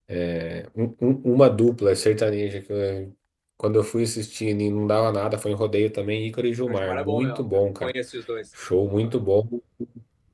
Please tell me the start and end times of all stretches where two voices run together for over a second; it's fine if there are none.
6.7-7.9

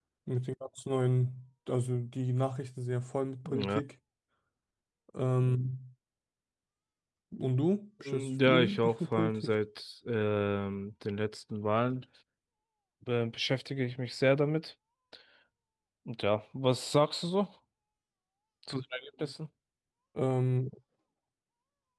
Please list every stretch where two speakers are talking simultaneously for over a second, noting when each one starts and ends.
8.1-9.5

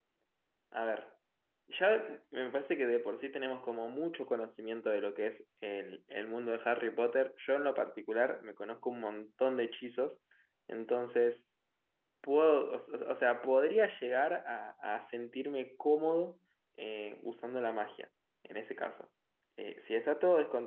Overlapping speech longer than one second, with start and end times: none

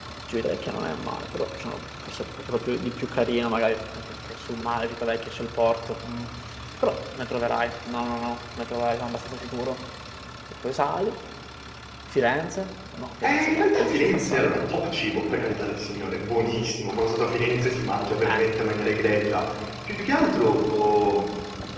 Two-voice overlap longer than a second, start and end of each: 13.2-14.6

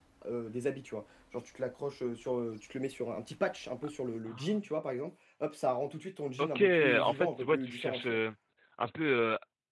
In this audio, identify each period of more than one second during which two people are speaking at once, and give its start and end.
6.4-8.2

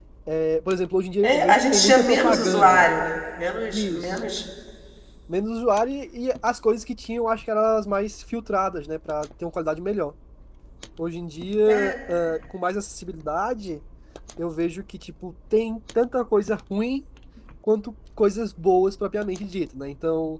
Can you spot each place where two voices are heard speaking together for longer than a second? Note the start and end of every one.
1.2-2.9

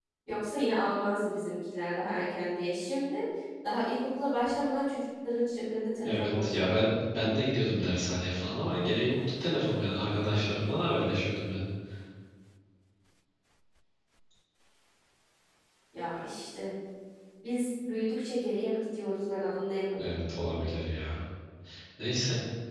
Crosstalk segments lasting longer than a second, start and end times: none

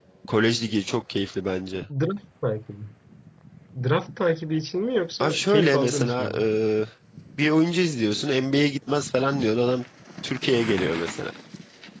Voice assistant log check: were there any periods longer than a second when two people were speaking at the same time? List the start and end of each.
5.2-6.4

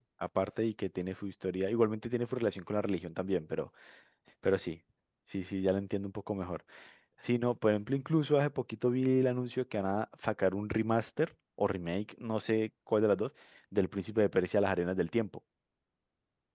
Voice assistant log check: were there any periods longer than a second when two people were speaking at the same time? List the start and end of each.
none

